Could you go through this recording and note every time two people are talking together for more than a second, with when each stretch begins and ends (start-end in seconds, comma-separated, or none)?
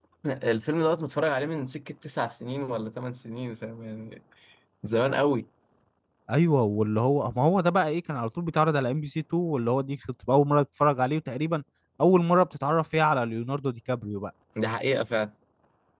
none